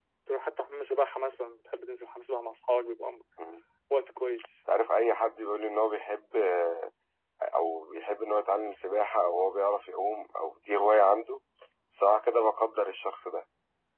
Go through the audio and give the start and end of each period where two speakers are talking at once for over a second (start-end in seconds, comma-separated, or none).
none